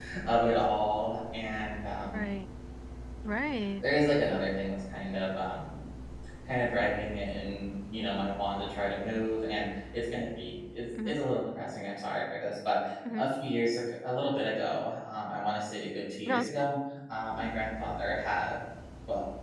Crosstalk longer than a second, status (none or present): none